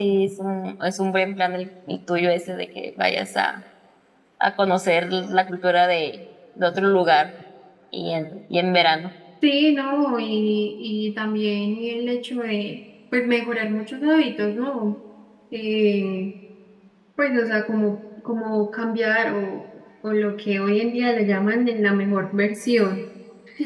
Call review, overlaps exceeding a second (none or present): none